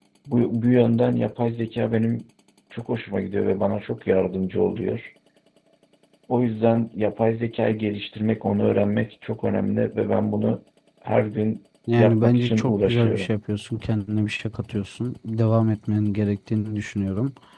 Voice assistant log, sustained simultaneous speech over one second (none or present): present